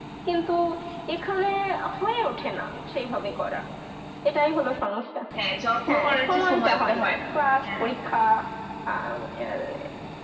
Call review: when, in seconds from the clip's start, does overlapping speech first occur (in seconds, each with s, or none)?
5.9 s